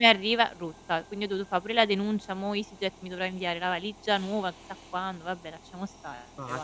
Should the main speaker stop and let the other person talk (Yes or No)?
Yes